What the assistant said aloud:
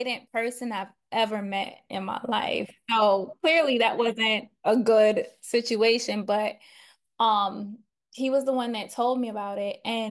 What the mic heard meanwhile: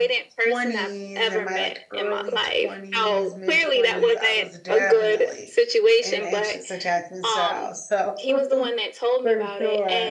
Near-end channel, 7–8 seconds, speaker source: both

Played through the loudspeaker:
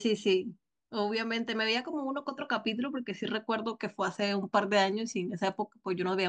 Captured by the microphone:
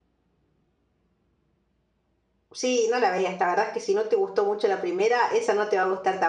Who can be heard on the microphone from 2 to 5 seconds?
user only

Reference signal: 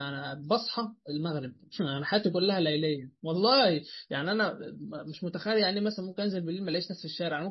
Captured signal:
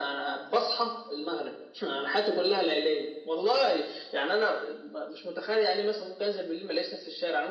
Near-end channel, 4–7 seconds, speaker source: echo only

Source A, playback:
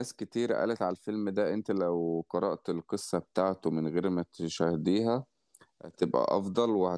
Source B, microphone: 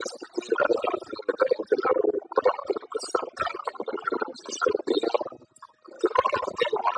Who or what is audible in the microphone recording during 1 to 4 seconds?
echo only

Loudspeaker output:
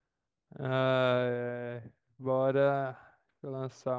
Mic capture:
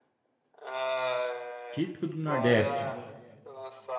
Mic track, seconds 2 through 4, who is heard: both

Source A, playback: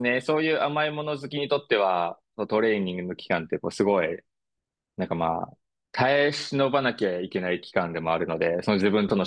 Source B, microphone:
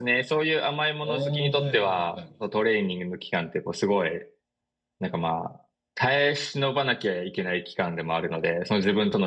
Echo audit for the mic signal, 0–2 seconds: both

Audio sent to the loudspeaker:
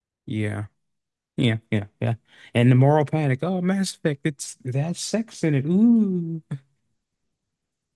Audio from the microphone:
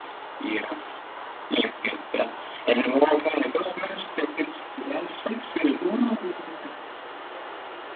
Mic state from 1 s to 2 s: echo only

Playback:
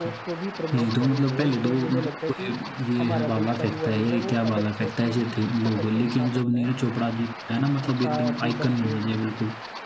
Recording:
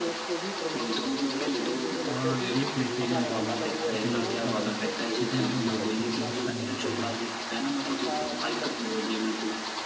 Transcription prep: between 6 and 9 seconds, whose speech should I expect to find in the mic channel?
both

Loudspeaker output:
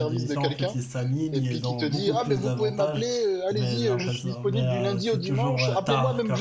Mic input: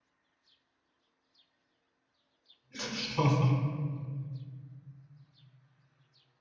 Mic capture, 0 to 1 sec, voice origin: neither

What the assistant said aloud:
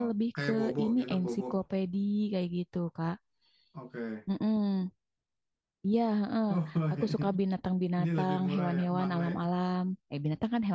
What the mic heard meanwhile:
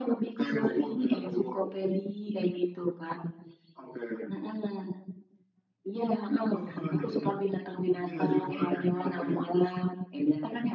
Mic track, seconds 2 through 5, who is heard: echo only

